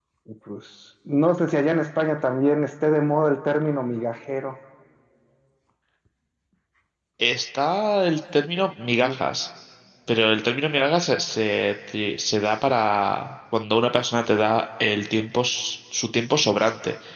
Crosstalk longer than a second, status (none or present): none